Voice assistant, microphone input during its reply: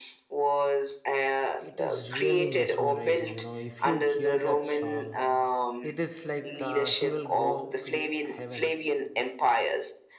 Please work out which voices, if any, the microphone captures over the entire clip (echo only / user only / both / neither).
both